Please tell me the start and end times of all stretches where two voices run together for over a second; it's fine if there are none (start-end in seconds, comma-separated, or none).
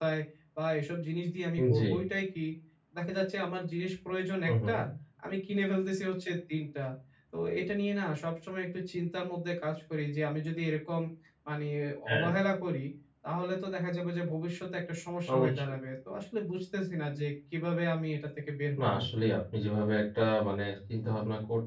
none